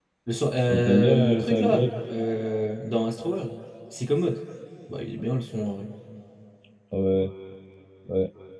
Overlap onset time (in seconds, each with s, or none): 0.7 s